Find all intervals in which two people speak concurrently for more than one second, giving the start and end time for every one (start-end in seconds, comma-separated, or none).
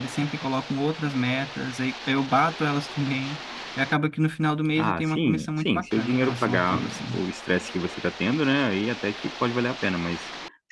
4.8-7.2